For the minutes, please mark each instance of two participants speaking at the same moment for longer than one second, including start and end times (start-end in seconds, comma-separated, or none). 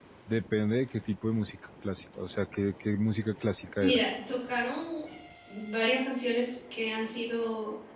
none